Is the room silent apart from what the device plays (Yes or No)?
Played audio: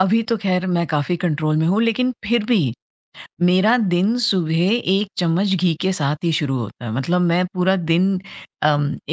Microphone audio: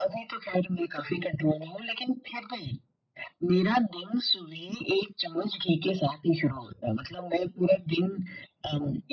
Yes